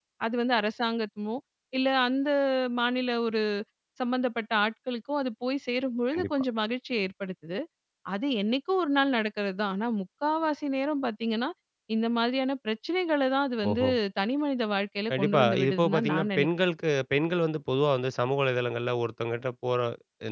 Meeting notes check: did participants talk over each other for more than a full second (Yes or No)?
Yes